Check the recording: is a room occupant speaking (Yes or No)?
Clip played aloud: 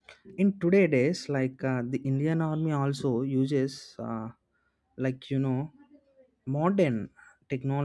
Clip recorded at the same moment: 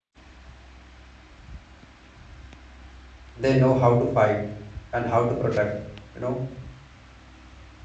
Yes